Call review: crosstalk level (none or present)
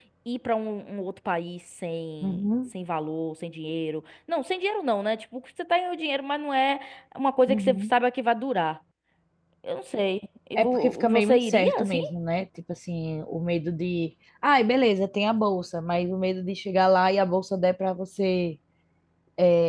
present